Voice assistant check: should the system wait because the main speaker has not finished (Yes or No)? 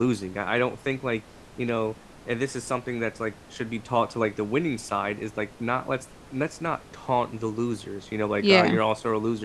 Yes